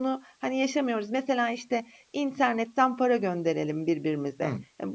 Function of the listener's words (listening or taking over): listening